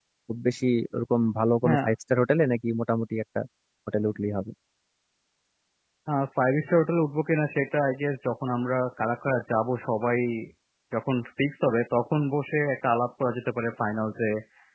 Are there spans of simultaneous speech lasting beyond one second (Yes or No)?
No